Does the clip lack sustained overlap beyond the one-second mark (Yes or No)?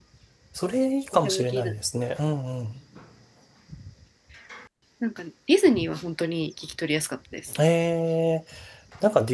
Yes